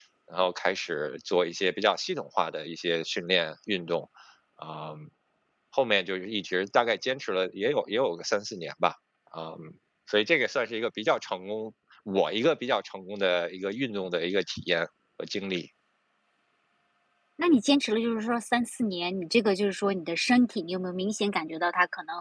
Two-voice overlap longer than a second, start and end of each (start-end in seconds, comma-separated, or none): none